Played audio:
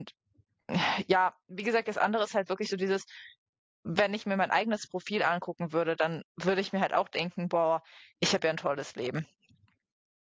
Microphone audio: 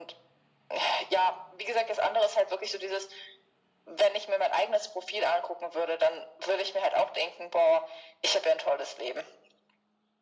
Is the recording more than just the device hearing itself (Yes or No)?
No